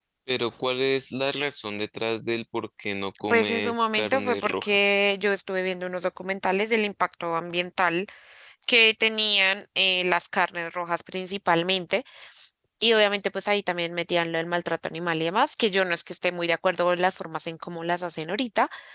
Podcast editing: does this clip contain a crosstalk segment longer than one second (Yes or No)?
Yes